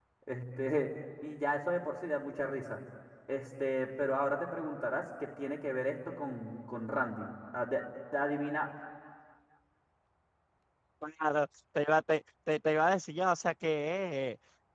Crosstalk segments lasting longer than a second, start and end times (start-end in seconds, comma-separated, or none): none